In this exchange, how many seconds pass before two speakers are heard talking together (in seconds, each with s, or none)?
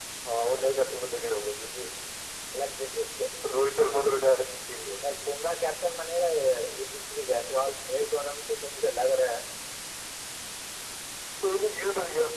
none